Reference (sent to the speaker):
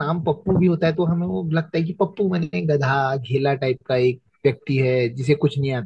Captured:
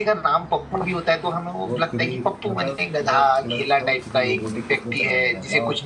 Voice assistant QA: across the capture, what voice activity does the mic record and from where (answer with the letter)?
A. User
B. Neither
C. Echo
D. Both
D